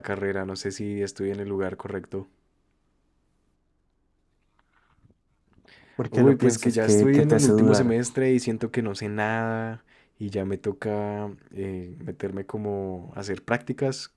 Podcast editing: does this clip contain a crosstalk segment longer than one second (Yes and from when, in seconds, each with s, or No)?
Yes, from 6.1 s